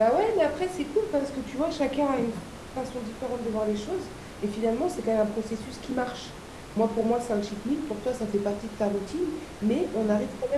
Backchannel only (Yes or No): Yes